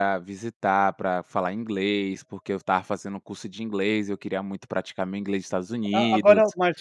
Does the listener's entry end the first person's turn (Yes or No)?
Yes